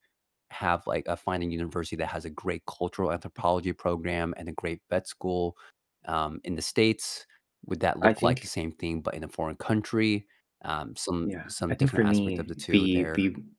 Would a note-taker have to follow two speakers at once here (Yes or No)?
Yes